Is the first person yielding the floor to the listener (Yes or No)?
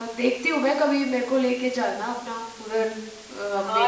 Yes